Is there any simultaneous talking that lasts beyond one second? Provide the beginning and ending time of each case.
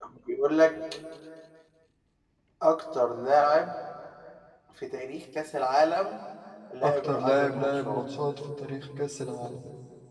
6.8-8.0

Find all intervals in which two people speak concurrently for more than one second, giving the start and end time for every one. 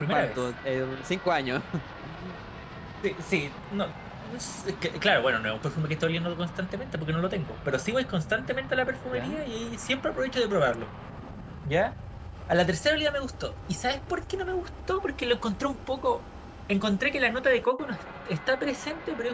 none

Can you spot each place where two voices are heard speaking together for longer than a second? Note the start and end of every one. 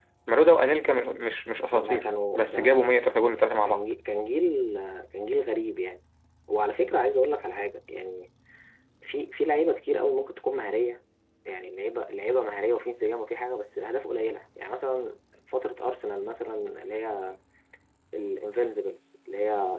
1.7-3.9

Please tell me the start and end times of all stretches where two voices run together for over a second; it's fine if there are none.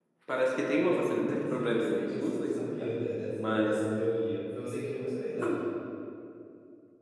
0.8-2.9

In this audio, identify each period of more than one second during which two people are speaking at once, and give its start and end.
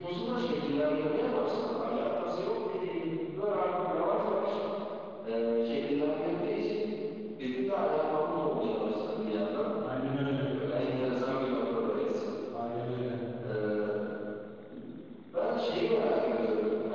none

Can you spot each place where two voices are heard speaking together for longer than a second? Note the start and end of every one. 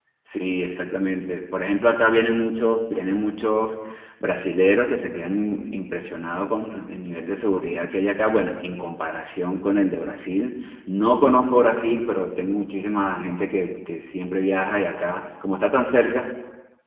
none

